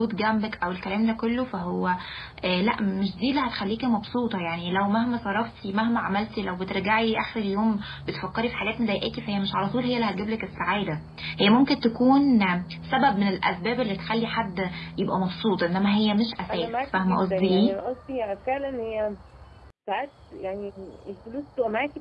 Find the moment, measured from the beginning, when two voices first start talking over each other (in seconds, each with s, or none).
16.5 s